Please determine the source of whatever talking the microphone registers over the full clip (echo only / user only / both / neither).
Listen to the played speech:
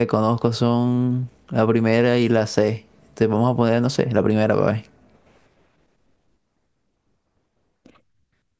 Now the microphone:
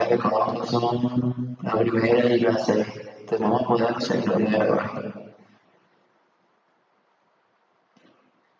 echo only